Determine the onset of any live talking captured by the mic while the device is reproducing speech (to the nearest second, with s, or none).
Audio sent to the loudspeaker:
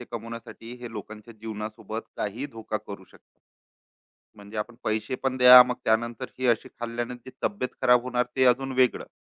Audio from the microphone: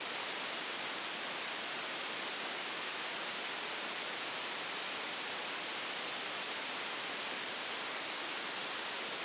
none